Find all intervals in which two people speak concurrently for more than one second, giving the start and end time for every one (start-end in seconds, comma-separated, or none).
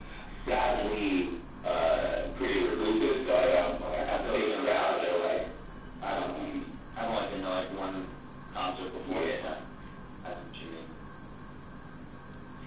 4.0-5.3